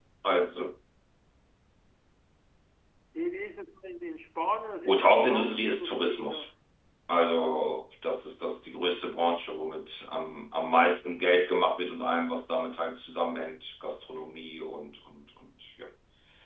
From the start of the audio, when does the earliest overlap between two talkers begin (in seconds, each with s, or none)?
4.8 s